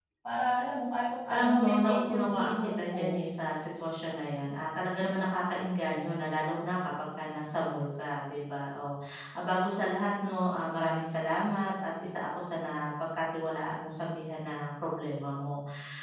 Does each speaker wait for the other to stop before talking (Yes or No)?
No